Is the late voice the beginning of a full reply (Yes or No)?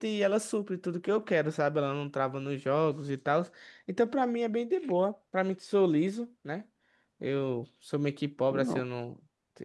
No